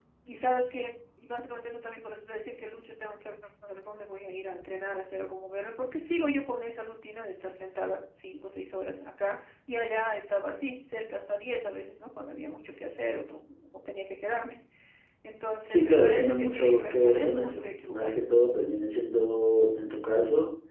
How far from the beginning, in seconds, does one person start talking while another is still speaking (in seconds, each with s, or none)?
15.7 s